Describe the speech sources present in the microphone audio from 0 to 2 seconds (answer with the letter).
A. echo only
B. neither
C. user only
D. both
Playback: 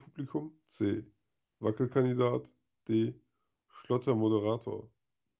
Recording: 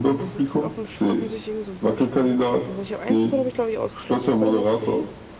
D